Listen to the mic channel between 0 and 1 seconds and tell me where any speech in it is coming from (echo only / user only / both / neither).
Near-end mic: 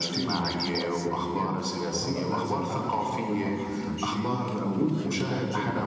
both